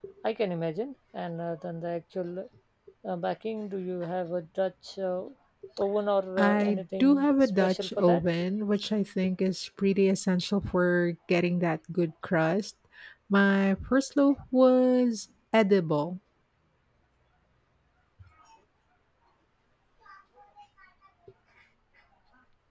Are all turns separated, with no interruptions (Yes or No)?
No